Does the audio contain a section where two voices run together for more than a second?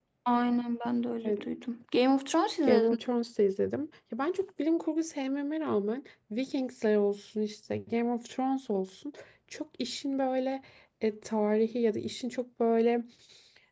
No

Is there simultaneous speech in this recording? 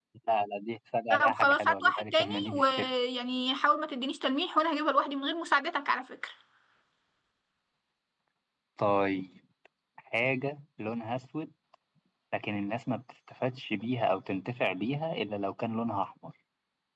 Yes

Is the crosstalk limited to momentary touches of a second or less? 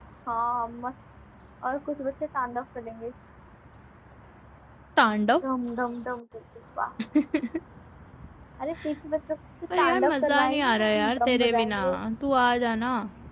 No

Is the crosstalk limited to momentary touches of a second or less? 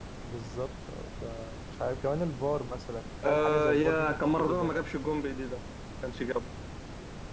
No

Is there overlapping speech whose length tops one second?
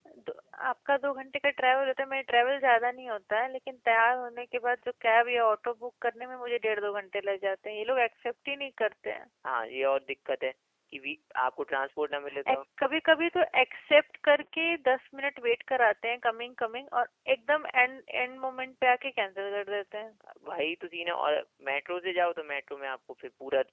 No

